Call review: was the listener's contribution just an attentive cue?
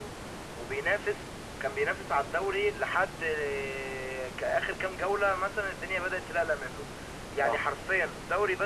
Yes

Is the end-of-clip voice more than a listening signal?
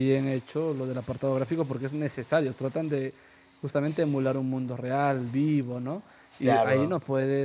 No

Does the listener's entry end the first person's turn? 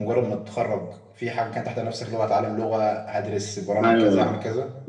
Yes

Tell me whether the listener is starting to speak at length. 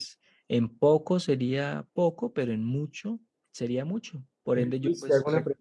Yes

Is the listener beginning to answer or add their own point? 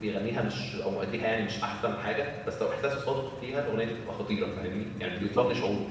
Yes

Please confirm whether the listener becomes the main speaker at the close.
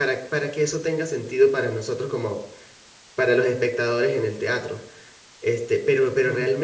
No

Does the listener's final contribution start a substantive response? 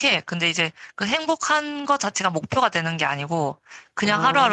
No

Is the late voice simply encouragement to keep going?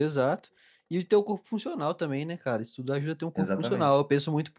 Yes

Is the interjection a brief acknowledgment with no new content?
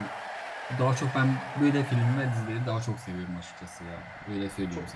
No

